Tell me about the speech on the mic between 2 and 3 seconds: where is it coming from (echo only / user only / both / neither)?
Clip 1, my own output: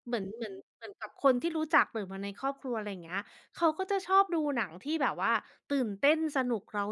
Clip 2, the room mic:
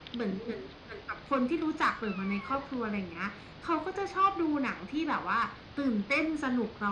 echo only